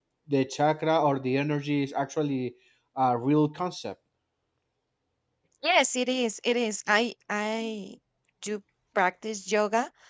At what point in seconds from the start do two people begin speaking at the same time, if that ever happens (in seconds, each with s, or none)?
none